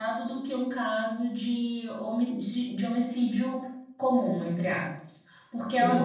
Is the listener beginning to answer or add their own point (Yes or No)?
No